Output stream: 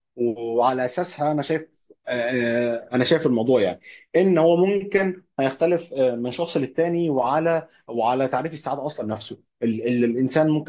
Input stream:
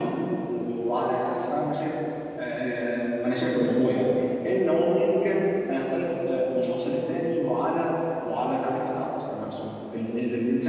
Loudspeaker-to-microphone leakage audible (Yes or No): Yes